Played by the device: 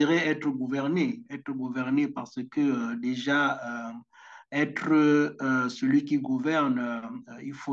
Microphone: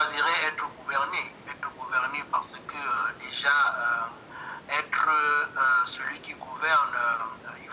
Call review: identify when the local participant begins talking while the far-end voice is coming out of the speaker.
none

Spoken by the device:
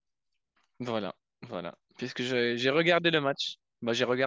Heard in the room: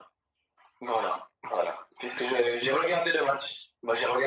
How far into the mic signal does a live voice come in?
none

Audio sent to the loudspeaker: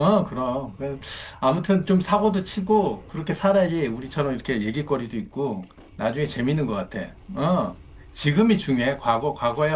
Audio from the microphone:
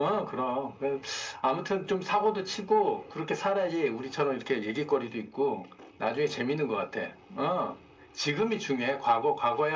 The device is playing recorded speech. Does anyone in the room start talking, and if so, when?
none

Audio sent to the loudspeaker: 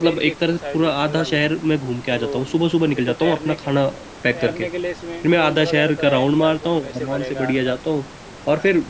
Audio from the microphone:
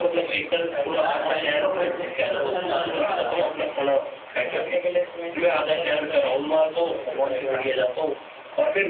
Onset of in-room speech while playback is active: 1.0 s

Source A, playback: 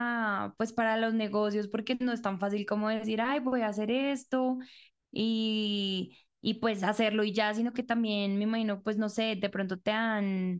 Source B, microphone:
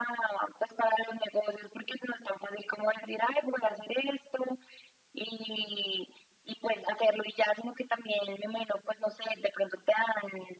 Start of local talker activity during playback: none

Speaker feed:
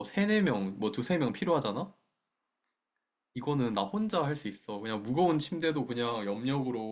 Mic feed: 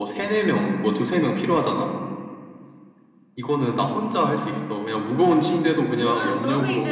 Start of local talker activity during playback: 5.4 s

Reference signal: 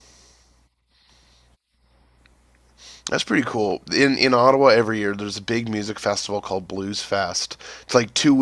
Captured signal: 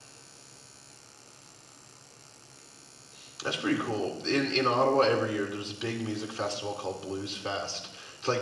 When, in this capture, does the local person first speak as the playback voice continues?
none

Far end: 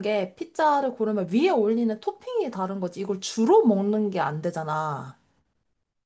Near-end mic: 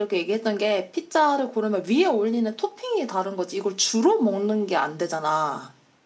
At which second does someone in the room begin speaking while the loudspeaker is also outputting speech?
none

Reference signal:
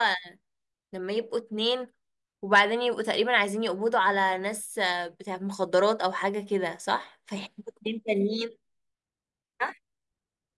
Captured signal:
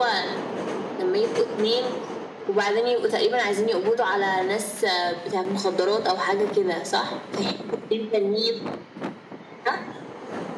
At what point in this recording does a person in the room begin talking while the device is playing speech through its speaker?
none

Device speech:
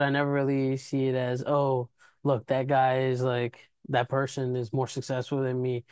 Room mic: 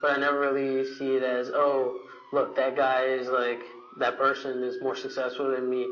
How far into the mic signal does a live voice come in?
none

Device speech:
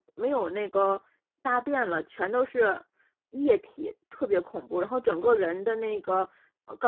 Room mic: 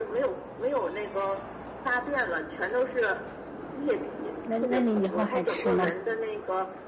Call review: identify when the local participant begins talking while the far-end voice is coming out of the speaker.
4.4 s

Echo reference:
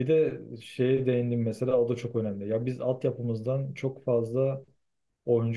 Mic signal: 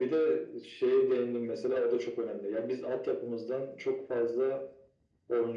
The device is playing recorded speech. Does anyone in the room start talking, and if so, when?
none

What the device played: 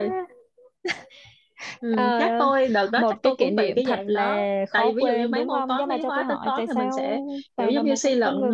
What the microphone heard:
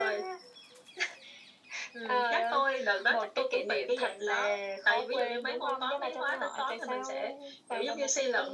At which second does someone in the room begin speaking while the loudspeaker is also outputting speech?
none

